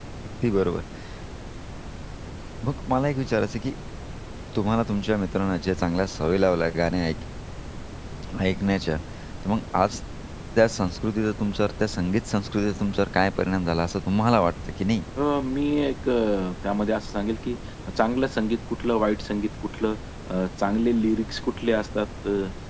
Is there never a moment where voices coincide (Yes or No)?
Yes